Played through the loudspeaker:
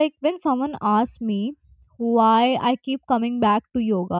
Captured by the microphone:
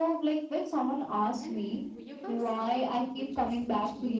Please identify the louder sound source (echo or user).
echo